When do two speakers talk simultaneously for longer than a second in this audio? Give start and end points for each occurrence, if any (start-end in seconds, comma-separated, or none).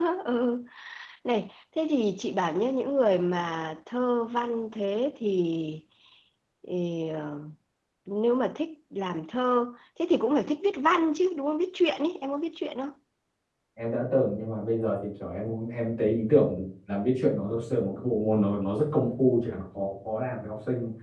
none